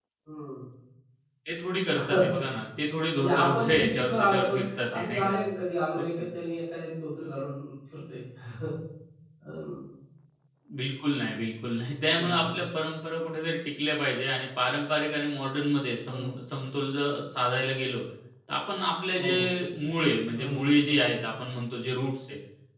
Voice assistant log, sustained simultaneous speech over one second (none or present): present